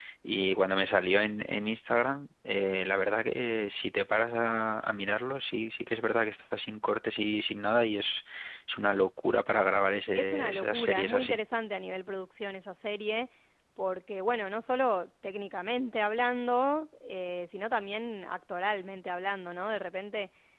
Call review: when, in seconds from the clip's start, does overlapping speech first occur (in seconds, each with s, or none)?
10.1 s